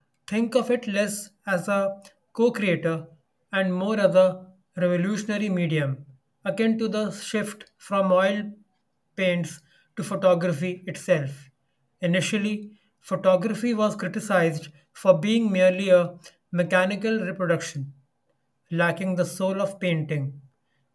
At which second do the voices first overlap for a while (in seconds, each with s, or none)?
none